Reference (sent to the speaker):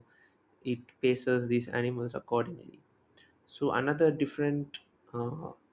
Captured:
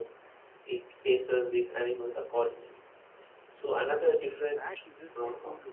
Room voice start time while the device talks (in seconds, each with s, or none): 4.4 s